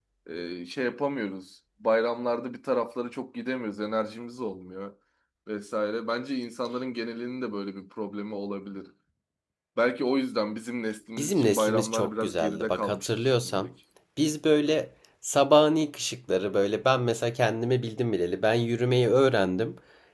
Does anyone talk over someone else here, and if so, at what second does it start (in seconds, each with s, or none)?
11.2 s